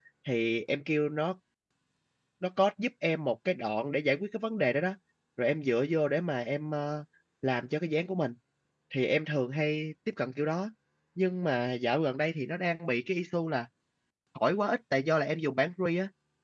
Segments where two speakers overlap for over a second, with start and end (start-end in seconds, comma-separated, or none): none